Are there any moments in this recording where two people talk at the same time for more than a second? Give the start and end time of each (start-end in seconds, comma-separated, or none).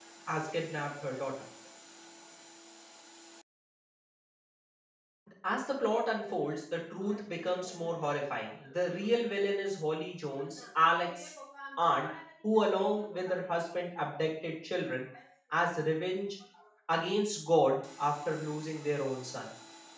none